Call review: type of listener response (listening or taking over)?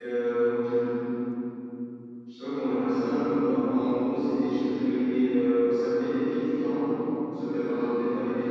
listening